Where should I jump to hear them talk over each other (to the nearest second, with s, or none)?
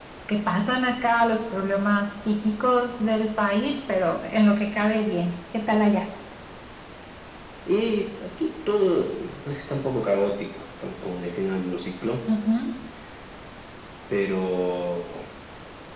none